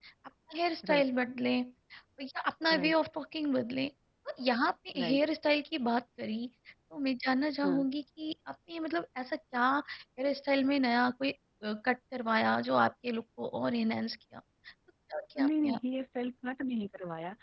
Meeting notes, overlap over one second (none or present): none